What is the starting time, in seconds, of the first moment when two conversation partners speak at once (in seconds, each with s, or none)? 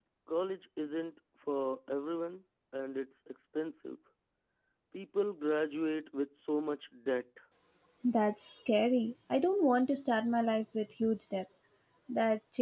none